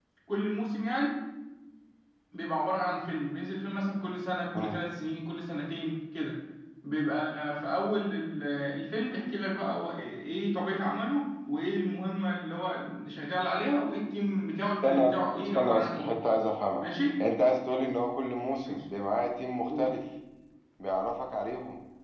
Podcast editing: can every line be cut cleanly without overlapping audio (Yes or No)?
No